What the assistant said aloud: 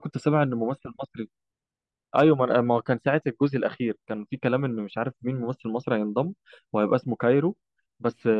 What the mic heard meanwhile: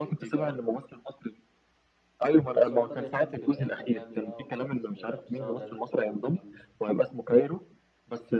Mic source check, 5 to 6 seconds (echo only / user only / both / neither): both